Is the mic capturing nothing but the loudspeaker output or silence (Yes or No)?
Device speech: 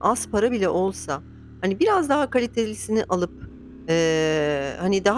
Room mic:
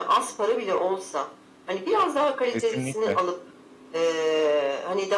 No